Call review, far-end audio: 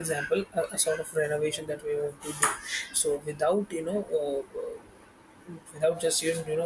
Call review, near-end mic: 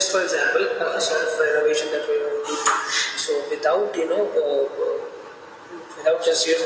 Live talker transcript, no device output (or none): none